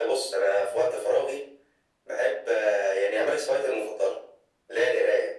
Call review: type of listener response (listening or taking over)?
listening